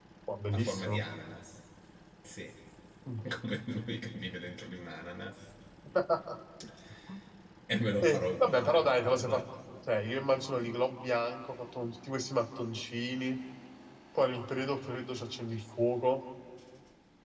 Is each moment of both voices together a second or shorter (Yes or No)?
No